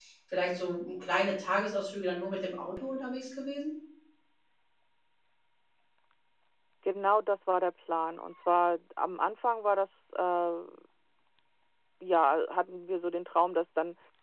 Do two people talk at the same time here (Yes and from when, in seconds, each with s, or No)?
No